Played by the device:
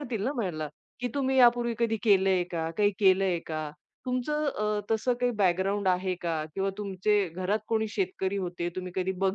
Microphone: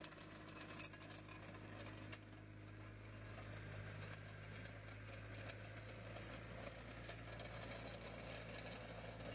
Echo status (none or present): none